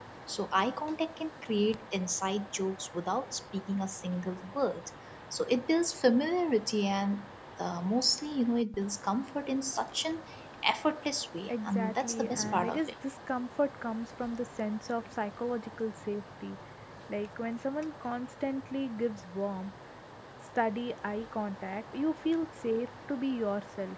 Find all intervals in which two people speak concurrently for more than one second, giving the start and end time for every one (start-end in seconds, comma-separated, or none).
11.5-12.8